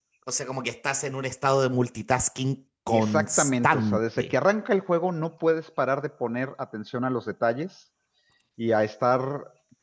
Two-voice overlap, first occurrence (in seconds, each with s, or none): 2.9 s